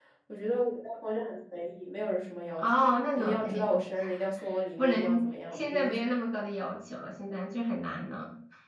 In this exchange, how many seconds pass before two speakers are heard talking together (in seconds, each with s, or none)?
2.6 s